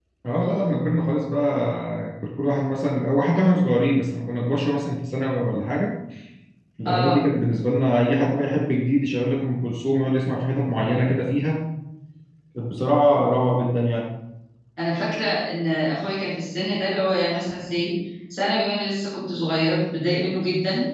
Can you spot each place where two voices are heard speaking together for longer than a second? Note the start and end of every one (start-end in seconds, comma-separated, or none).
none